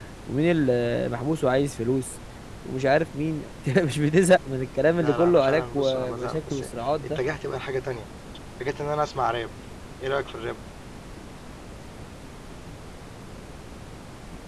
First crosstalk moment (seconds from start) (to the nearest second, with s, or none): 5 s